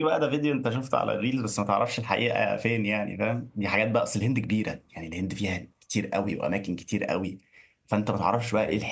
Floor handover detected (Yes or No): No